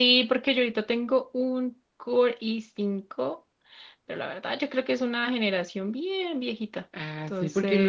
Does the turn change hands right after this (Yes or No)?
Yes